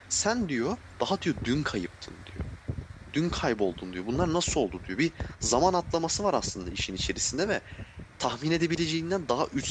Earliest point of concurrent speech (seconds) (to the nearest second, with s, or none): none